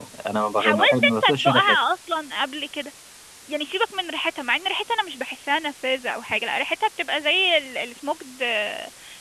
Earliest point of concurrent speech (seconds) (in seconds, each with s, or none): 0.6 s